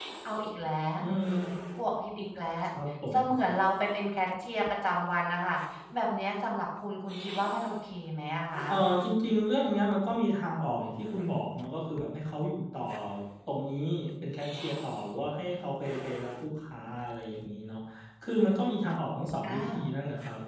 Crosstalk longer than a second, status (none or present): none